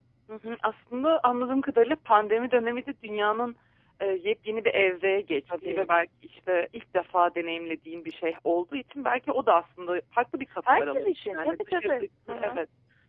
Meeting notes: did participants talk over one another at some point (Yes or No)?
Yes